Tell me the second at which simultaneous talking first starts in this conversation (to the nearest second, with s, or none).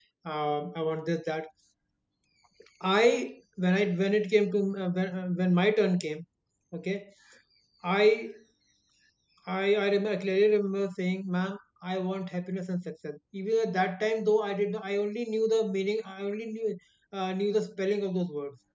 none